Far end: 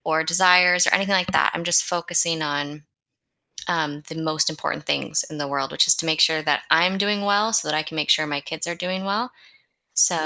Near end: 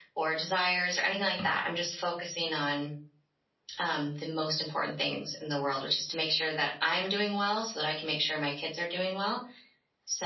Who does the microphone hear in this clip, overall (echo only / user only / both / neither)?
echo only